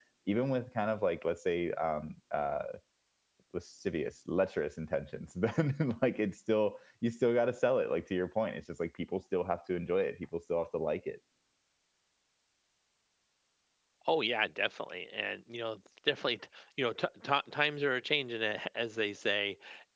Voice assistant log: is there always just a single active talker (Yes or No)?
Yes